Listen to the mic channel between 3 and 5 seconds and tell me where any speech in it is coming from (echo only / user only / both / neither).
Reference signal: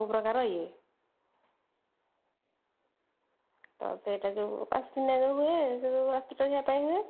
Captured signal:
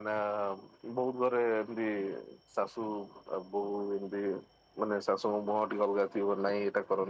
user only